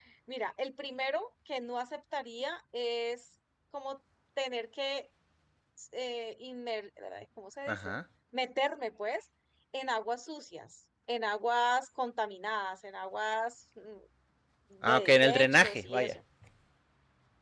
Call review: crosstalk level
present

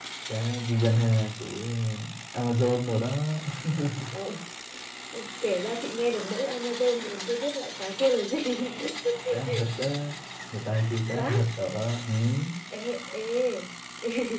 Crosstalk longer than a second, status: none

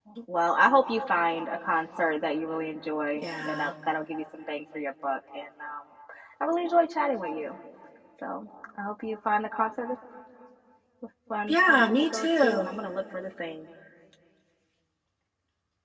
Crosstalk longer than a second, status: present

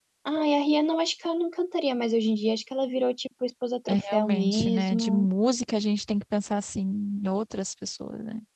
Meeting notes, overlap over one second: present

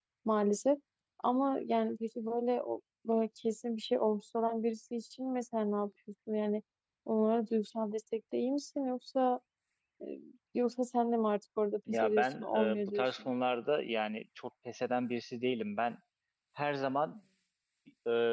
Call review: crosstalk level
present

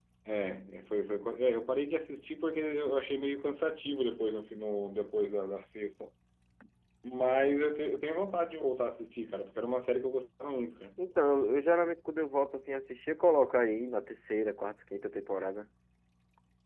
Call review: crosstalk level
none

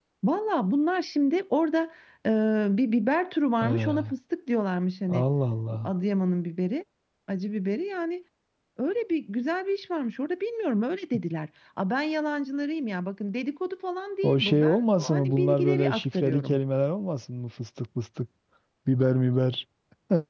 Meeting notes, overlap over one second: present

